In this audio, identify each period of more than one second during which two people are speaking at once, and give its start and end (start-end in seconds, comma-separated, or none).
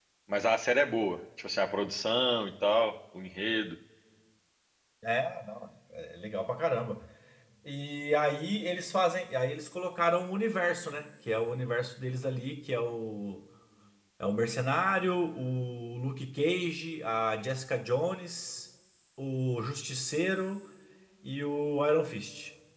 none